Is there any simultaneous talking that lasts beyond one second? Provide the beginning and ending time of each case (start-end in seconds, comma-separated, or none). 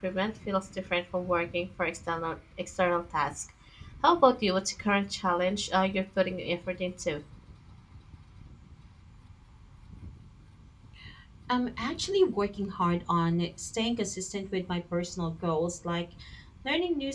none